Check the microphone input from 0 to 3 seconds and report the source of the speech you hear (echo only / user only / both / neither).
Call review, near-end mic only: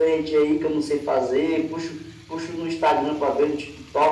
echo only